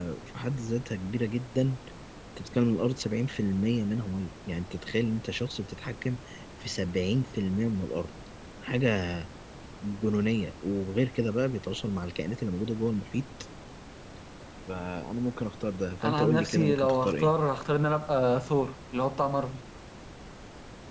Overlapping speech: Yes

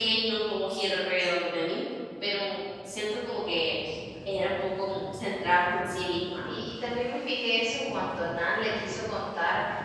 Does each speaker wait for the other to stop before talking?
Yes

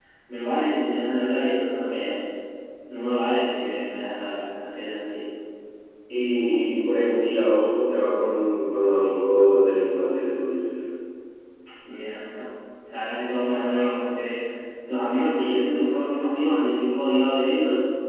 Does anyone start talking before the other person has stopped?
No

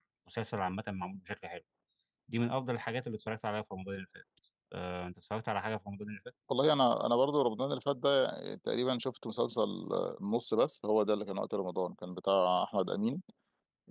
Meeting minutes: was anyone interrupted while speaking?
No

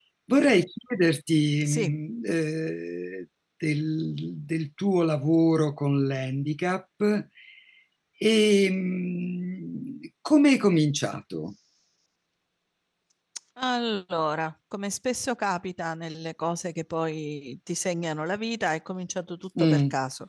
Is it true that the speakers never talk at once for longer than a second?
Yes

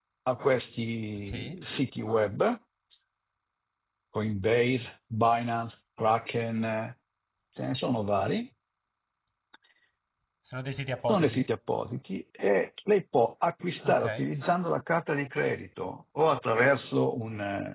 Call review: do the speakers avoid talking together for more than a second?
Yes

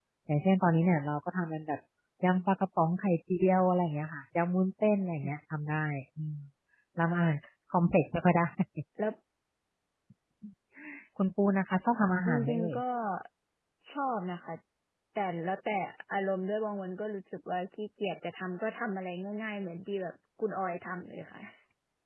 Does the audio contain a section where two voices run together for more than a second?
No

